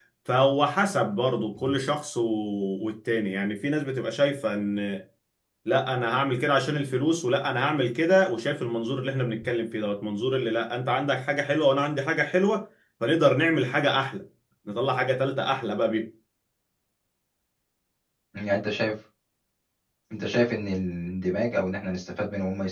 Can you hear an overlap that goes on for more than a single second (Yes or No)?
No